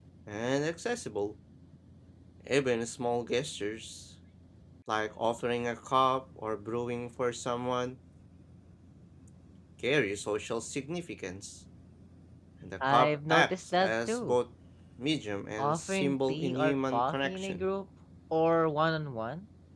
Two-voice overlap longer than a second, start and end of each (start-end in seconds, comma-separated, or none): 12.8-14.4, 15.6-17.7